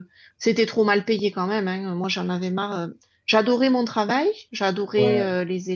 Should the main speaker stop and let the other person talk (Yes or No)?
No